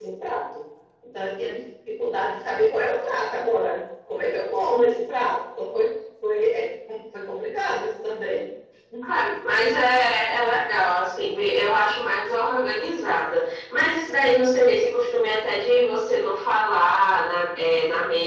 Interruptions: none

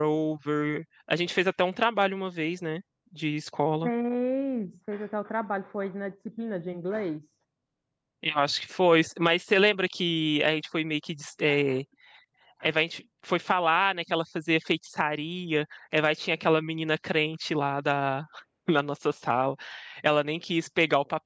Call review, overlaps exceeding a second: none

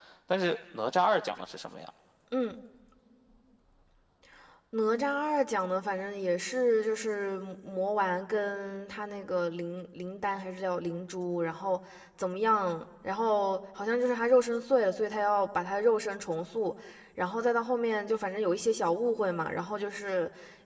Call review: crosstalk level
none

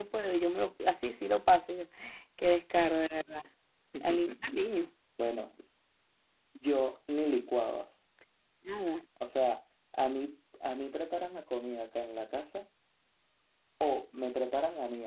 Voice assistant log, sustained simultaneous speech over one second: none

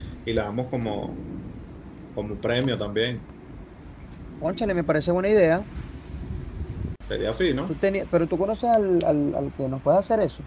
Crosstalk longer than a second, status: none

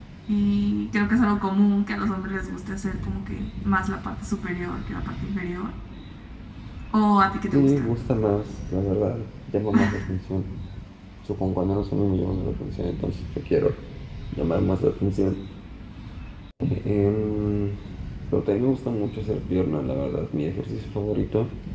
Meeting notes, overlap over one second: none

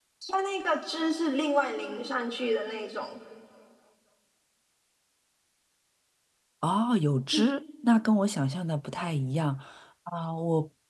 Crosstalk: none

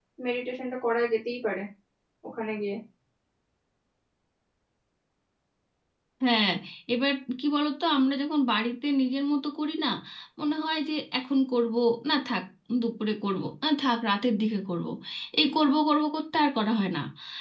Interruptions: none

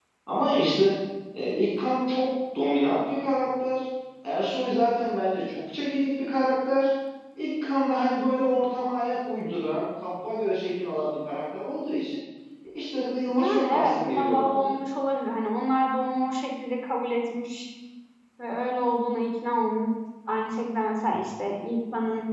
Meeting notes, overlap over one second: present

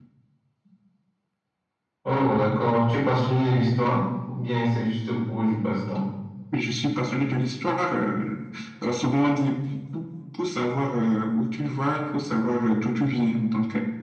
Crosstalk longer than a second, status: none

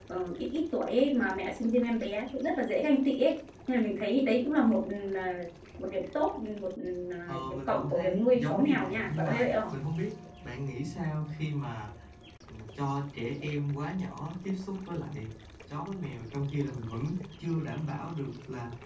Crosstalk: present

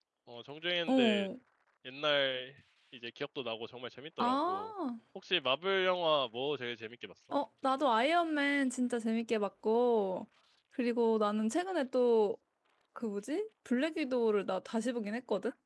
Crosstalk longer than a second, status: none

